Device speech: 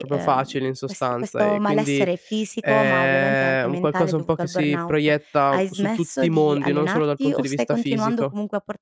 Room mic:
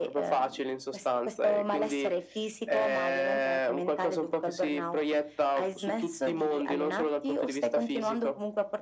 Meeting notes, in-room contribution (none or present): none